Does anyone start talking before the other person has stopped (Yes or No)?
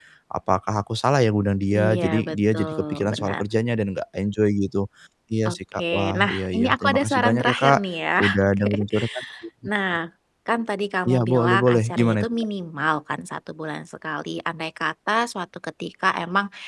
Yes